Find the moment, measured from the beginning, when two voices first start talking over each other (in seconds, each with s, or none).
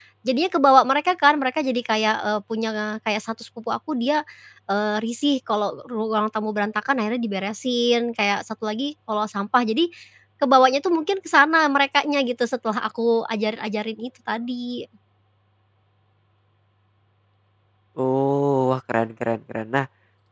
none